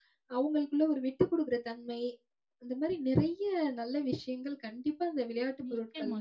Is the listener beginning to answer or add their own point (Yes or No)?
Yes